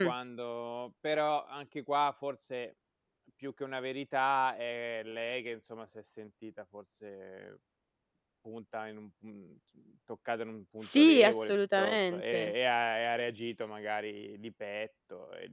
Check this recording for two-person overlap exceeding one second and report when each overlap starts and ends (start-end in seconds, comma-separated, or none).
10.8-12.5